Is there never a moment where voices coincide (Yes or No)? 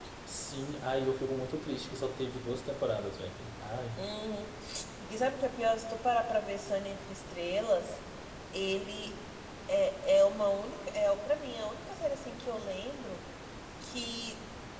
Yes